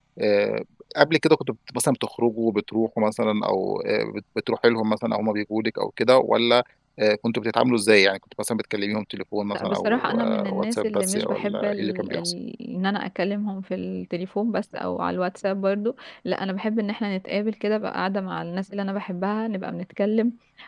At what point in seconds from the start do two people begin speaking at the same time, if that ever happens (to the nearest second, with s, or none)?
9 s